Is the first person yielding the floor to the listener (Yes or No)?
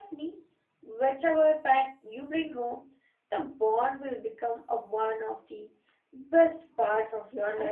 Yes